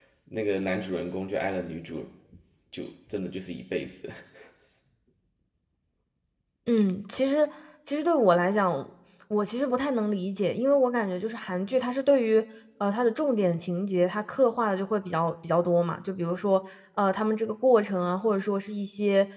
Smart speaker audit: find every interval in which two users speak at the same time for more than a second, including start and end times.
none

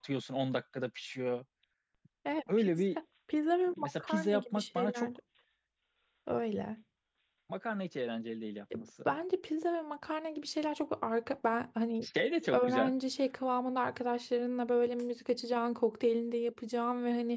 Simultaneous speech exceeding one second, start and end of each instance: 3.8-5.1

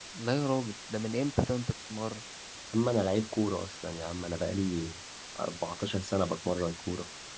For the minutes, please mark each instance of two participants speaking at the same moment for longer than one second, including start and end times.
none

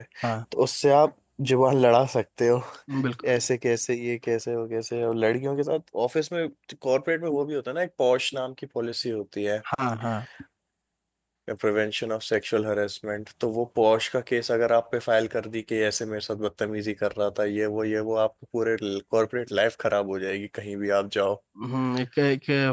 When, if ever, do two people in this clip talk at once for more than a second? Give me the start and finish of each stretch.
none

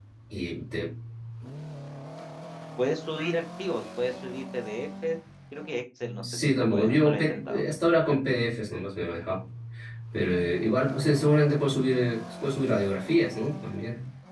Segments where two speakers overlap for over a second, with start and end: 6.2-7.6

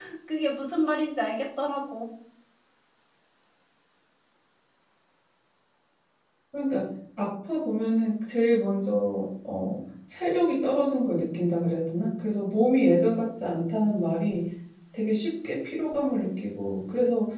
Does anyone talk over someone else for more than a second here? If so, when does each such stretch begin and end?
none

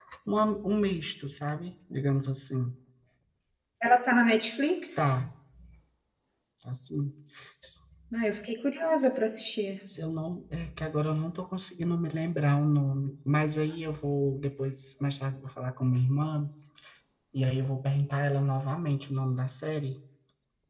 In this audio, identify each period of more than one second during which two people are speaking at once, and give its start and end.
none

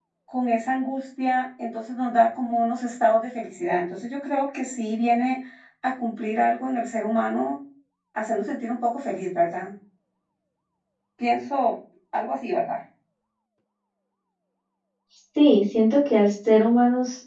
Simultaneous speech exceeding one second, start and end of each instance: none

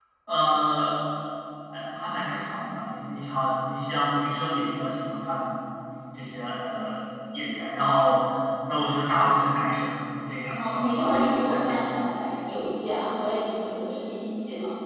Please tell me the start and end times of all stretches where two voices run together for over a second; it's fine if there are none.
10.5-11.9

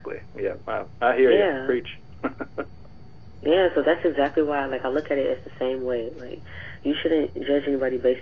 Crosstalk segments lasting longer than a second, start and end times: none

